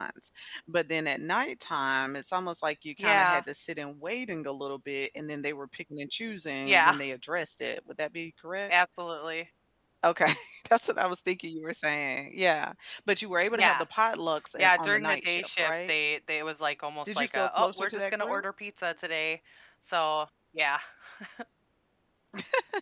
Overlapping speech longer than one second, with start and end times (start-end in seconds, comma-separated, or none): 14.6-15.9, 17.2-18.4